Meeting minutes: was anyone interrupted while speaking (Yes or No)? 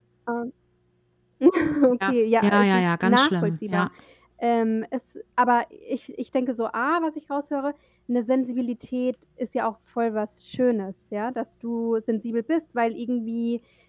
Yes